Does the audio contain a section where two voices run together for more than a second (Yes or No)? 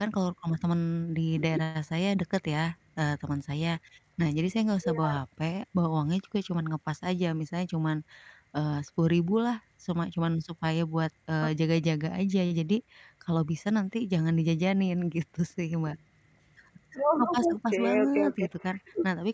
Yes